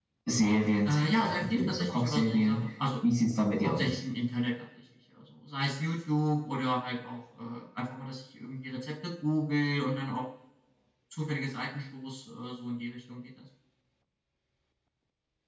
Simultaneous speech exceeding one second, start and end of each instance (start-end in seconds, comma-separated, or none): 0.8-2.5